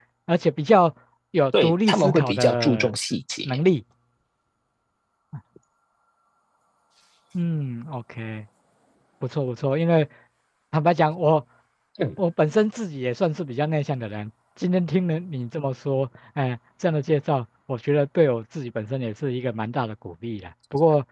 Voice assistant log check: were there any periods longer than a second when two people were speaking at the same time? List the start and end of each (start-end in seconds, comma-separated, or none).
1.6-2.9